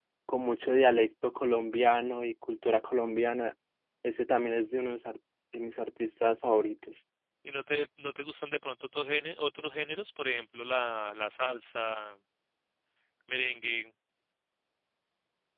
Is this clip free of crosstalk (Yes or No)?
Yes